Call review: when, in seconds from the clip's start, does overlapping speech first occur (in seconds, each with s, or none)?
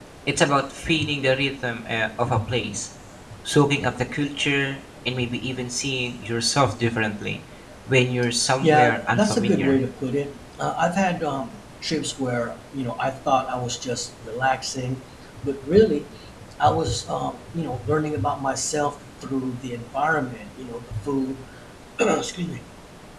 8.6 s